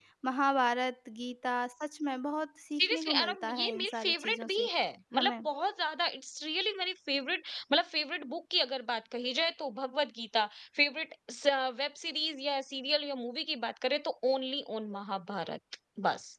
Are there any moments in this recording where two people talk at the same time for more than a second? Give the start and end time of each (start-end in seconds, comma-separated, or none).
2.8-4.7